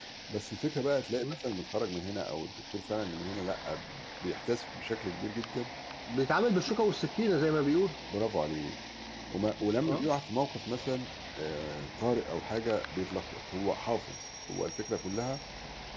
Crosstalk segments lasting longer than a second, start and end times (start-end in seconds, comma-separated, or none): none